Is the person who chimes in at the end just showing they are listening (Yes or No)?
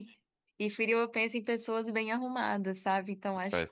Yes